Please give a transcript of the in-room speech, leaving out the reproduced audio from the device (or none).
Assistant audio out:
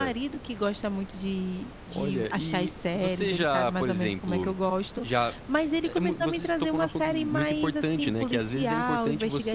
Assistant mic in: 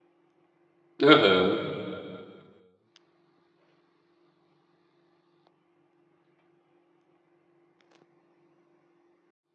Aham,